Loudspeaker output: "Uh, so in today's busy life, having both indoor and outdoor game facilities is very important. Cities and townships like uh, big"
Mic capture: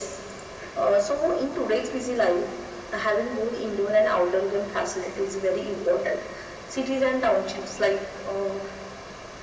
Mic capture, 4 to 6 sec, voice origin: echo only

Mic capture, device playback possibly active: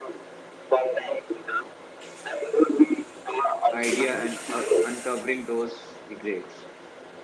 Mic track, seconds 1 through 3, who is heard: echo only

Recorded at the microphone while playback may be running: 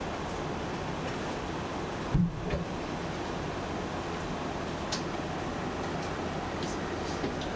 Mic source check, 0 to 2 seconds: neither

